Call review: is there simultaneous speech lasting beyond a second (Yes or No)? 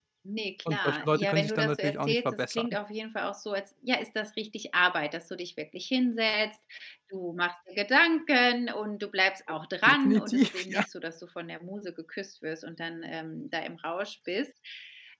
Yes